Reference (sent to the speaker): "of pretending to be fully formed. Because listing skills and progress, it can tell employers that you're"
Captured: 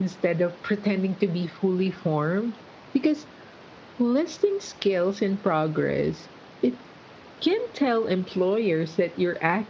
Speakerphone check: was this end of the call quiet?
Yes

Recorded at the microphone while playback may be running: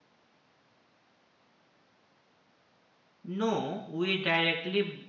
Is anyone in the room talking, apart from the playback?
Yes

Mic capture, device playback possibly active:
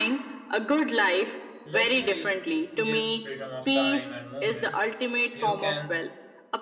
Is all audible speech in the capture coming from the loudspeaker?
No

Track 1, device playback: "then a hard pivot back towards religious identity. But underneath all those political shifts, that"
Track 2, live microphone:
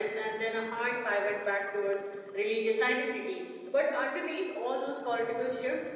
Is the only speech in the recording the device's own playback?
Yes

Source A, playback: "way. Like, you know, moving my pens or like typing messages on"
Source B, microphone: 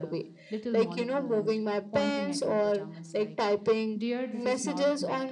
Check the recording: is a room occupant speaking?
Yes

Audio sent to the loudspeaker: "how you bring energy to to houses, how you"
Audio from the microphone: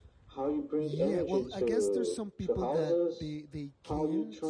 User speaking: Yes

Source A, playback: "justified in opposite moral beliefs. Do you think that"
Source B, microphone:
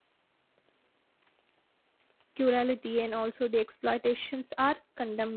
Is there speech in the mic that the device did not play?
Yes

